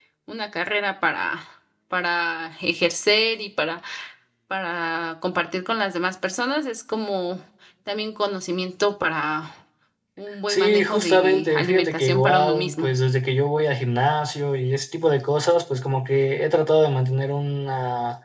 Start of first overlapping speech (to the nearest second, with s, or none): 10 s